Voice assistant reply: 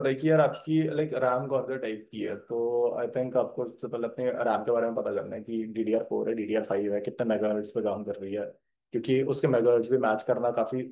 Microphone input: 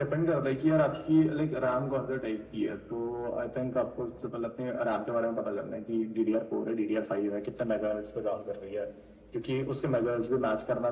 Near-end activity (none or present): none